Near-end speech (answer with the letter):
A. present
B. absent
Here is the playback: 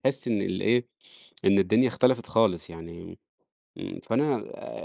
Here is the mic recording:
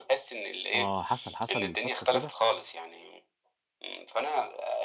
A